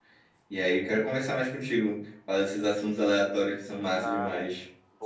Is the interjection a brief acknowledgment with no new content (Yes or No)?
No